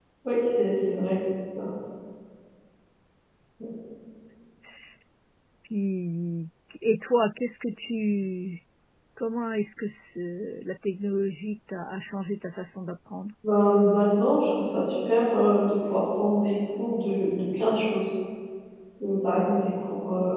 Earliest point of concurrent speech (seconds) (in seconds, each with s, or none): none